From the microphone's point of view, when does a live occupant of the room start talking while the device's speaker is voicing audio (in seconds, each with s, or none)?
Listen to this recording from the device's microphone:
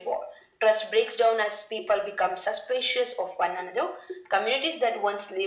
none